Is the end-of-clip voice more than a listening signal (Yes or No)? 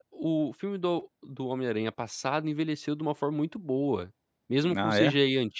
No